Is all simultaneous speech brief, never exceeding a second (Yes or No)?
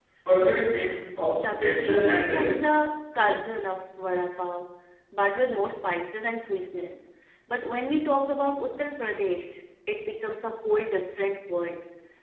No